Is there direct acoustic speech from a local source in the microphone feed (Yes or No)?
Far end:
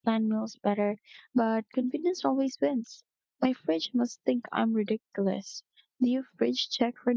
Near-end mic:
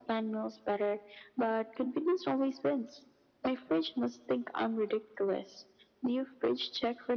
No